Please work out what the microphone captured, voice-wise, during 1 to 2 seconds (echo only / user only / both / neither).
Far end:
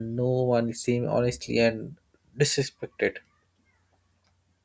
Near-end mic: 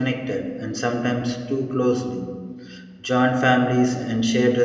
user only